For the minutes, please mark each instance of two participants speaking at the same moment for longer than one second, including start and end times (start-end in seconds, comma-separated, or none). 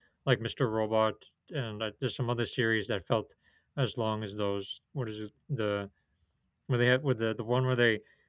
none